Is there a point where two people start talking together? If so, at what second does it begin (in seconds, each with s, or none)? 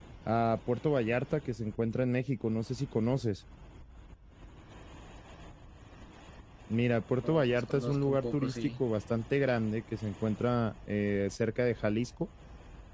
7.2 s